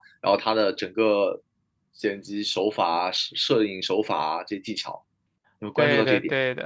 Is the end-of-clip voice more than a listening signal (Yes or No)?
Yes